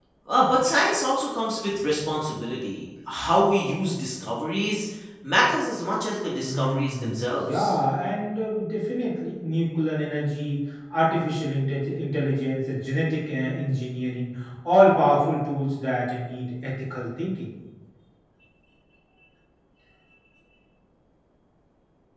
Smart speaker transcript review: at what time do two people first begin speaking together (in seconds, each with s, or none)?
6.4 s